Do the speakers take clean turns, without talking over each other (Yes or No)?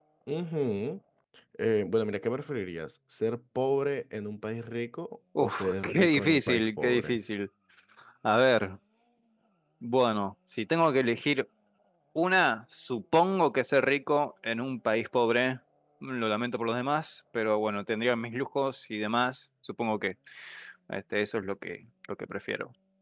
No